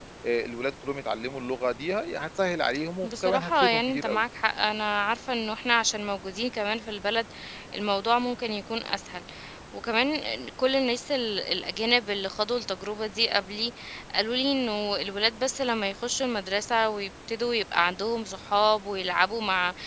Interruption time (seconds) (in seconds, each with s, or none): 3.0 s